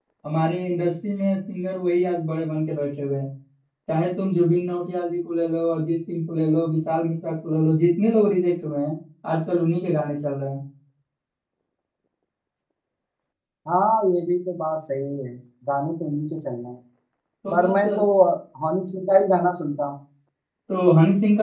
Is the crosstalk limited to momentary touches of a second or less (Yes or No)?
Yes